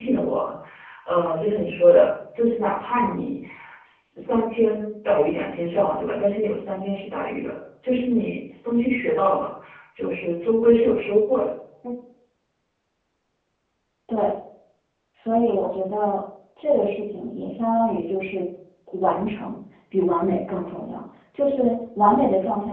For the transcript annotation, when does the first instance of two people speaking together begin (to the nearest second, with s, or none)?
none